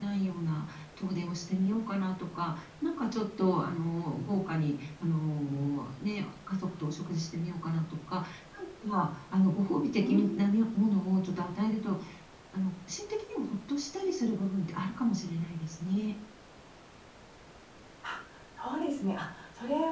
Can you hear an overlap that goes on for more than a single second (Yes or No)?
No